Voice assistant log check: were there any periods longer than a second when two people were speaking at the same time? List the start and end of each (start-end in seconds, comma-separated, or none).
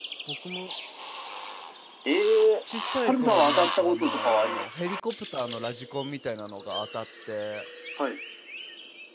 3.0-4.6